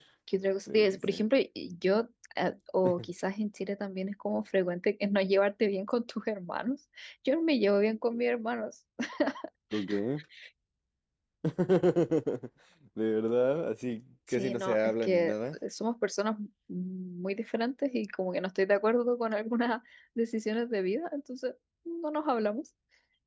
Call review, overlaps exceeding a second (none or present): present